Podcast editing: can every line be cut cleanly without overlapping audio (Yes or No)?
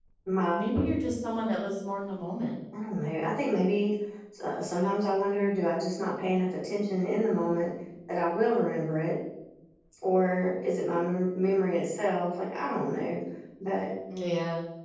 Yes